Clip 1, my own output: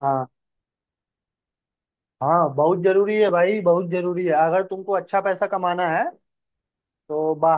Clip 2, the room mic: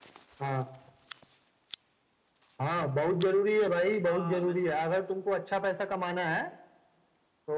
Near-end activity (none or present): present